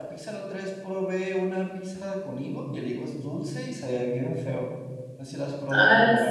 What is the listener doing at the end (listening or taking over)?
taking over